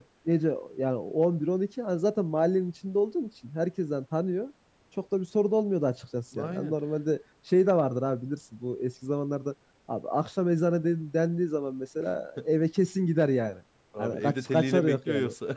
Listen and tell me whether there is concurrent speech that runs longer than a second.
Yes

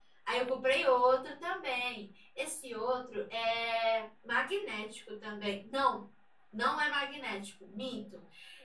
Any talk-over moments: No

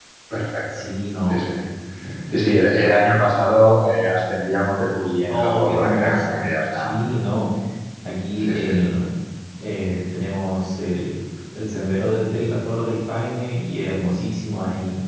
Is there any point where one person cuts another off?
Yes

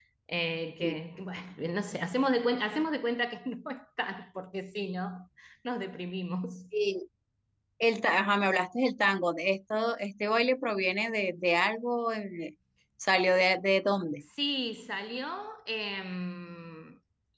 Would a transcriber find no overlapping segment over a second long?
Yes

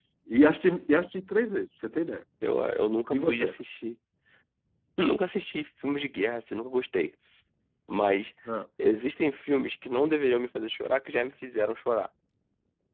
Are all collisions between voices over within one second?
Yes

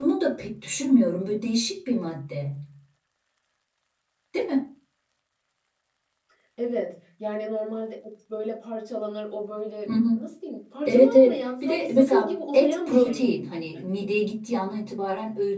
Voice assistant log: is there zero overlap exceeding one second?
No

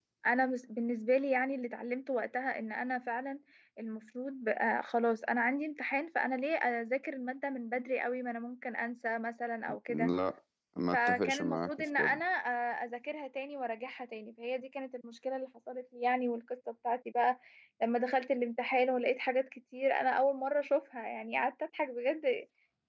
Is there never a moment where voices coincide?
No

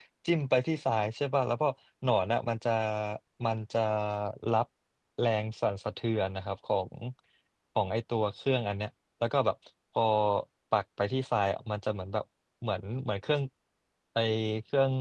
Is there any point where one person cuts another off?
No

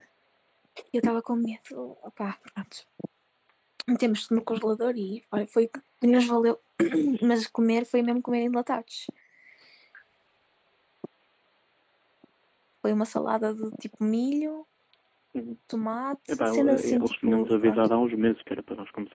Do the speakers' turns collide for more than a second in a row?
Yes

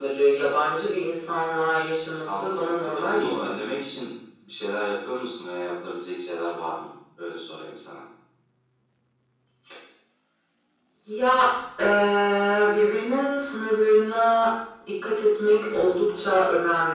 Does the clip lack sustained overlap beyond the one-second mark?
No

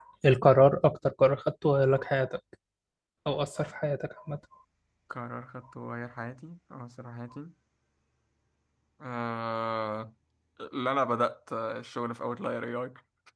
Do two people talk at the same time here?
No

